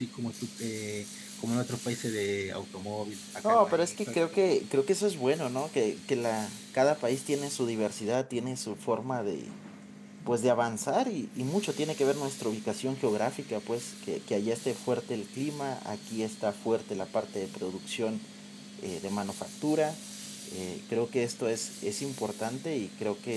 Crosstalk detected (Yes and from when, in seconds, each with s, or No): Yes, from 3.4 s